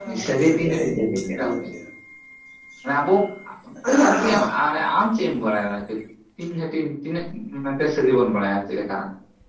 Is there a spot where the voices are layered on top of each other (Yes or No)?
Yes